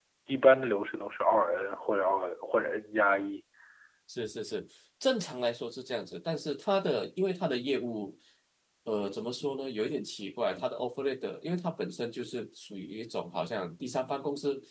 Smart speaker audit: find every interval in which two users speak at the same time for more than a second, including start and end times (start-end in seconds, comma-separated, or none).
none